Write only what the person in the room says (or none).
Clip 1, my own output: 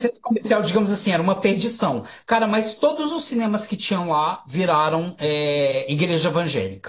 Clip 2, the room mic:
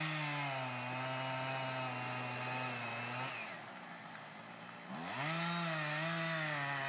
none